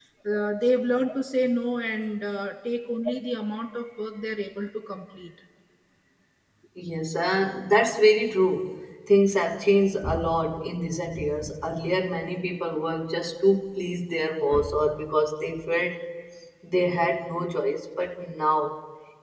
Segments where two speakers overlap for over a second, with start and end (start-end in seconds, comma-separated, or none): none